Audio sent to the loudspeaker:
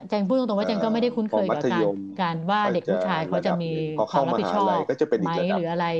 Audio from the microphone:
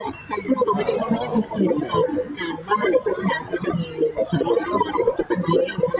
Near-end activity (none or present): present